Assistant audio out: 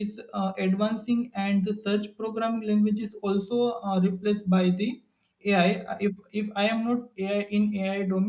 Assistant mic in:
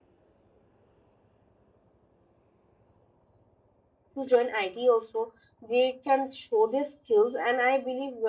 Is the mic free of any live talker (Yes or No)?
No